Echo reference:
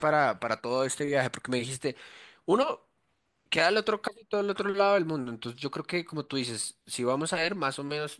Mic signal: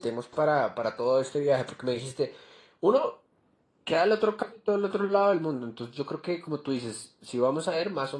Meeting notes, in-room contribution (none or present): none